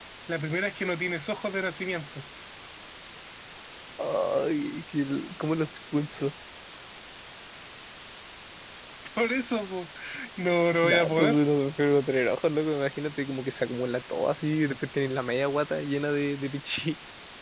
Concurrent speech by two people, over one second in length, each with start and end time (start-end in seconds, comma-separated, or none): none